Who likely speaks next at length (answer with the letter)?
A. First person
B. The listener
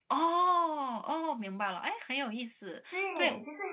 B